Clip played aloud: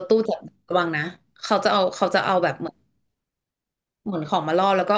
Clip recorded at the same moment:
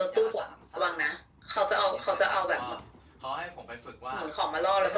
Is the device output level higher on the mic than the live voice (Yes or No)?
Yes